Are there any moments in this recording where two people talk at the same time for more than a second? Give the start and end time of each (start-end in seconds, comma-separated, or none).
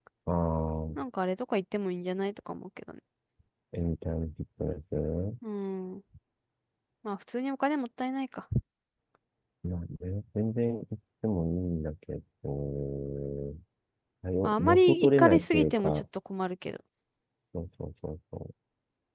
14.4-16.0